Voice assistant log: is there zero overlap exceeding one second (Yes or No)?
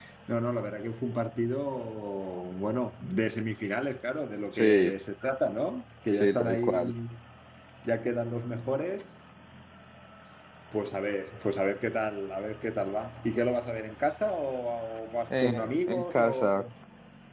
No